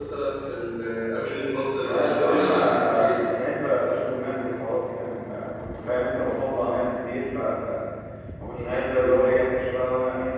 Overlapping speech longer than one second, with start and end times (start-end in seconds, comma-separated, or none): 1.8-3.2